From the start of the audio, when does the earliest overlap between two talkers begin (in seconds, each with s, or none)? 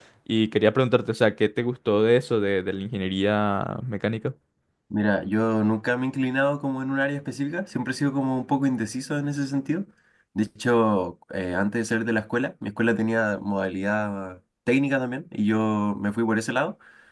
none